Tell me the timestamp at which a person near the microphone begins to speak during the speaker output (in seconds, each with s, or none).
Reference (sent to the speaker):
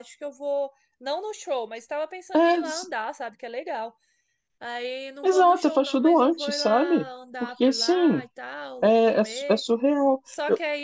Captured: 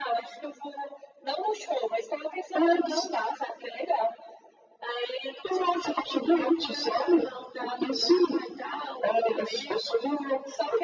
none